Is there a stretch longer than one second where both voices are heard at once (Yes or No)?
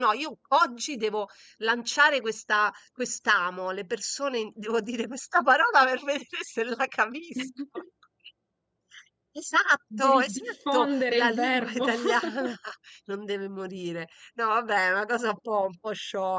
Yes